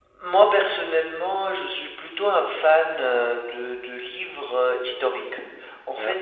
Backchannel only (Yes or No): Yes